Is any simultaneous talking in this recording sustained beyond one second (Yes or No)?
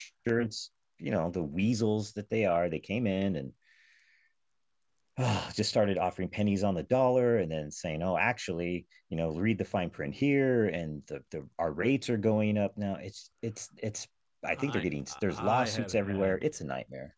Yes